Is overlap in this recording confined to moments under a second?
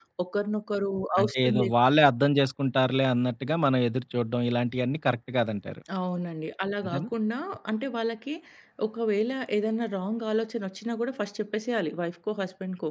Yes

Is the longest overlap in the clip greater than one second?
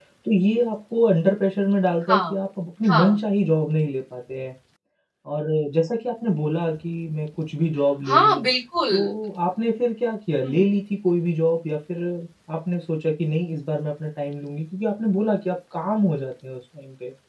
No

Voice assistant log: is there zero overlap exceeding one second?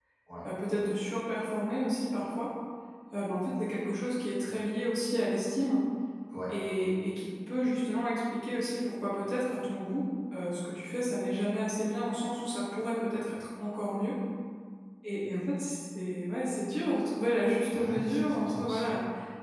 No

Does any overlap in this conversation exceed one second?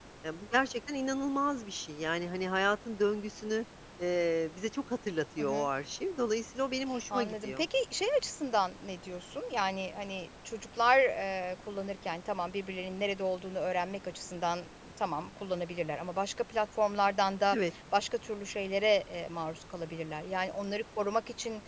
No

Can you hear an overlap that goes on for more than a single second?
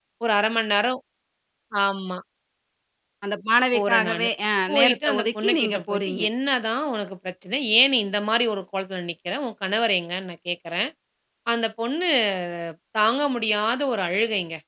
Yes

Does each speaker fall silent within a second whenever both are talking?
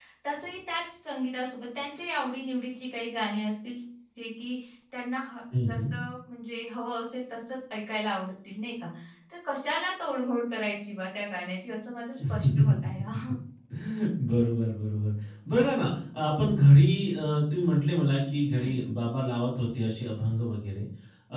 Yes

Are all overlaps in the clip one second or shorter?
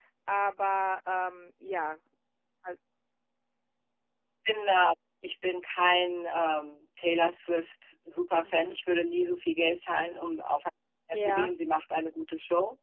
Yes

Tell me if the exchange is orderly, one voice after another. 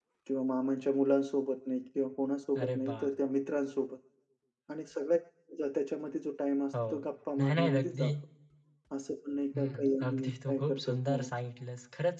No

